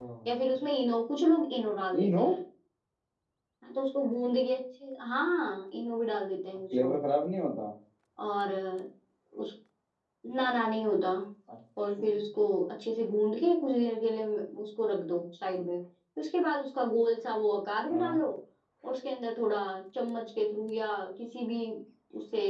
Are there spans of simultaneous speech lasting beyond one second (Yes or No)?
No